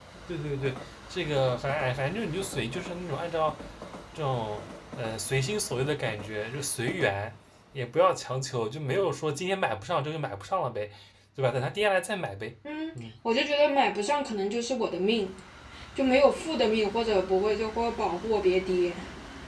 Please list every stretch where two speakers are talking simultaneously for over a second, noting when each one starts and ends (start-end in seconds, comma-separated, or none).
none